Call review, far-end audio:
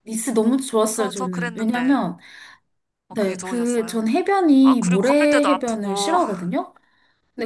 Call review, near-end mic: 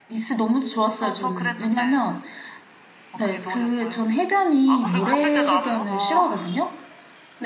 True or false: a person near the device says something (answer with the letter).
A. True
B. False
A